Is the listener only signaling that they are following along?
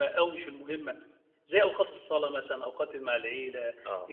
Yes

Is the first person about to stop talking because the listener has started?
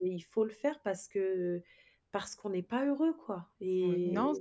Yes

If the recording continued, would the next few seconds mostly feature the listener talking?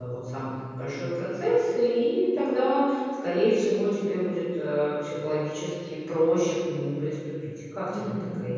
Yes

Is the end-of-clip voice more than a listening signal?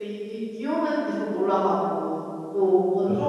No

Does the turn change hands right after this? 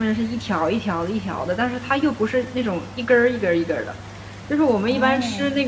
No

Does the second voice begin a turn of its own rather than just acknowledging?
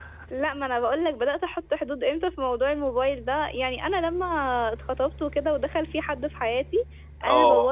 No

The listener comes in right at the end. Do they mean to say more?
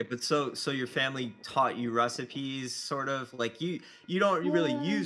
No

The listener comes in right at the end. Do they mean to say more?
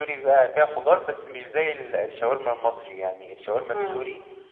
No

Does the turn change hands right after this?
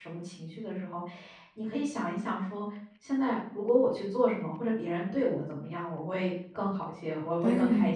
No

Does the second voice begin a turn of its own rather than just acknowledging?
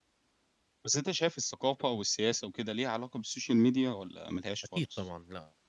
Yes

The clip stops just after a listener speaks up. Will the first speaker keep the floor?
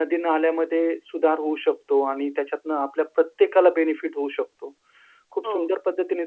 Yes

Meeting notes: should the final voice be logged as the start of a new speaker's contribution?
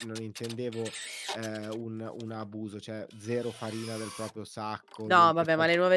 Yes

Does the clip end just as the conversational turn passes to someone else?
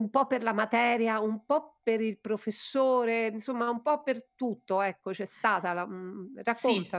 Yes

